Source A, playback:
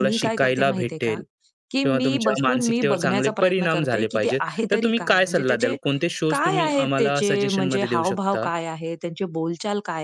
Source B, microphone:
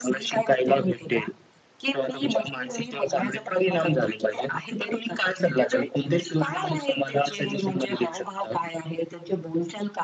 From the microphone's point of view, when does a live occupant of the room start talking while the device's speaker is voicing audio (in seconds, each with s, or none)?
none